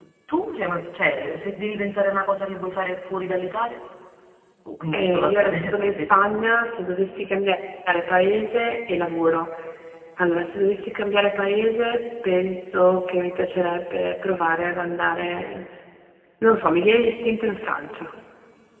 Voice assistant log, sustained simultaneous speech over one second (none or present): present